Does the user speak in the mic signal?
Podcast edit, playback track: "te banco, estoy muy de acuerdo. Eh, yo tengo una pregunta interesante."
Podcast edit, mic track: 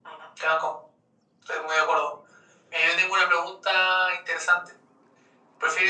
No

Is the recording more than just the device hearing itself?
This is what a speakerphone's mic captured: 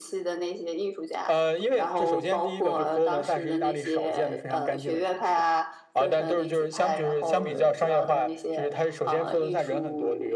No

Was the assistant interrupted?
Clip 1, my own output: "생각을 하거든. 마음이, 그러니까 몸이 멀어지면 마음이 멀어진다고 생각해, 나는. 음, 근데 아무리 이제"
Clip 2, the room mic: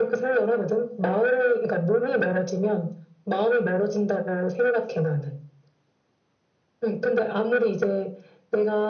No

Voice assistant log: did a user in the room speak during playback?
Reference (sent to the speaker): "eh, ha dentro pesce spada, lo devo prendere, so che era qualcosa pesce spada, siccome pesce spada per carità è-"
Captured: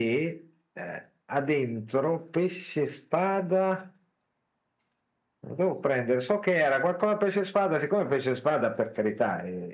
No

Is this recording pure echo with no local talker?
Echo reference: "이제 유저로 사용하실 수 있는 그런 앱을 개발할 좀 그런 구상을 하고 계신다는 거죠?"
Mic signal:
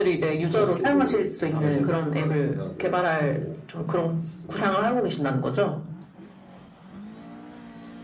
No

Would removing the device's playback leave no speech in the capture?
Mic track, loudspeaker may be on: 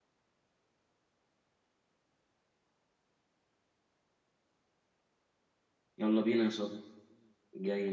No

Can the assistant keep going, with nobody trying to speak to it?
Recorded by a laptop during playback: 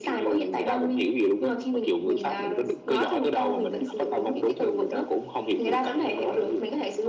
Yes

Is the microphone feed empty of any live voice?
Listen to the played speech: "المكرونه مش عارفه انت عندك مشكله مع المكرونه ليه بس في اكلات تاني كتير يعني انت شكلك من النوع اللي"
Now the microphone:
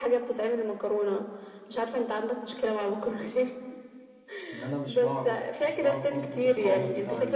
No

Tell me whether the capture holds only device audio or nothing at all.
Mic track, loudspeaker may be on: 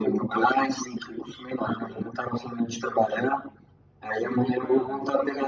No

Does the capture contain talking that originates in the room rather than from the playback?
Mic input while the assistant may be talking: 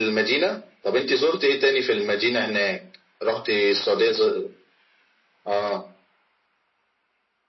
No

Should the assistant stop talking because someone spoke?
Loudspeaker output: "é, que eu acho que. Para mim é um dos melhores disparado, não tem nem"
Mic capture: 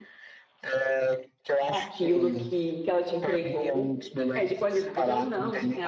Yes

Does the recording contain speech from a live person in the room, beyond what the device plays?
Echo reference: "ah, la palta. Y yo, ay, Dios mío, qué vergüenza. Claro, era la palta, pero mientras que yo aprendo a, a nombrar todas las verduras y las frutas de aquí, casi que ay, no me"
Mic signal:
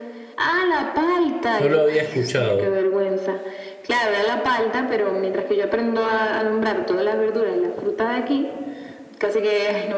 Yes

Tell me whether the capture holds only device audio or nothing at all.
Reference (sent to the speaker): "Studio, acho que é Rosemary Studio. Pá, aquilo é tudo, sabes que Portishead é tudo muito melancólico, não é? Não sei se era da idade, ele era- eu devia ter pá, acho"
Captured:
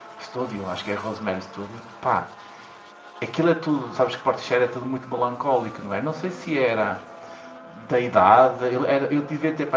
Yes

